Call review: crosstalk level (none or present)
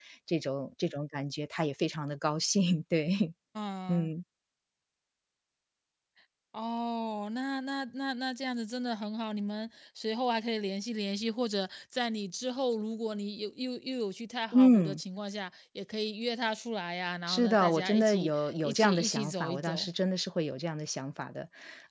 present